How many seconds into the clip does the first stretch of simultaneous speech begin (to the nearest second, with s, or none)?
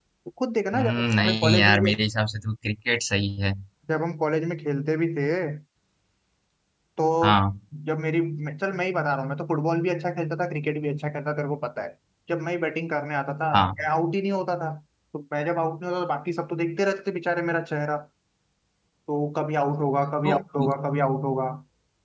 1 s